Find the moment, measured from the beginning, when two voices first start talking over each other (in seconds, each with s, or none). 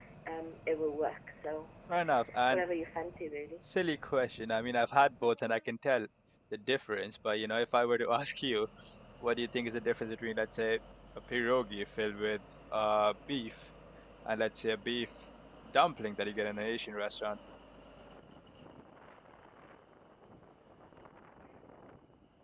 none